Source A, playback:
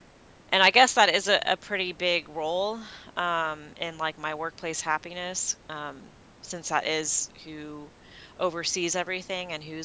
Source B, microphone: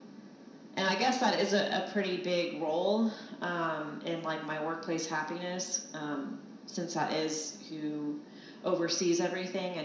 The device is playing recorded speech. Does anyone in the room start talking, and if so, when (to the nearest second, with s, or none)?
none